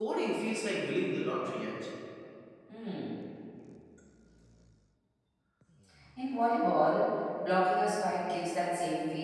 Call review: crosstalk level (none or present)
none